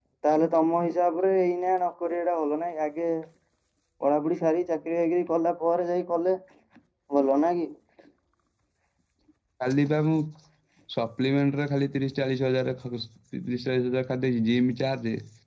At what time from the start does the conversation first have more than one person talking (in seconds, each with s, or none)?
none